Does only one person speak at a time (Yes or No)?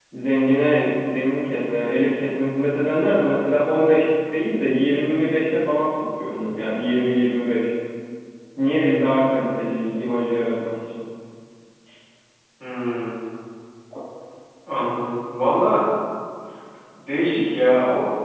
Yes